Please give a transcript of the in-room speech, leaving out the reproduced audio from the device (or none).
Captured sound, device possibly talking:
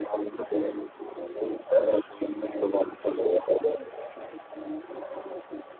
none